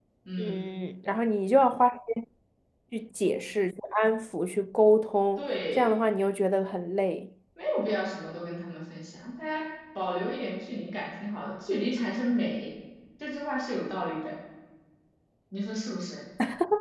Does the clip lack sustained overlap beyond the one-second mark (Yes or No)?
Yes